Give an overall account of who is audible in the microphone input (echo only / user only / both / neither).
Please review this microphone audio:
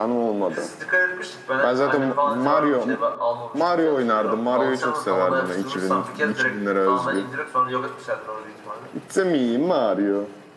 both